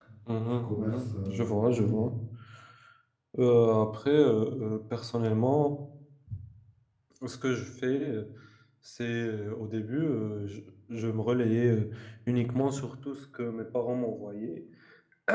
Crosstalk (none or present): present